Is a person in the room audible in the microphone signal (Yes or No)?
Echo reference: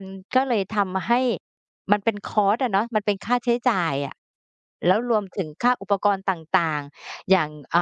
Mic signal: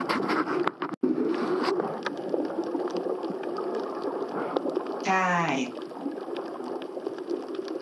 Yes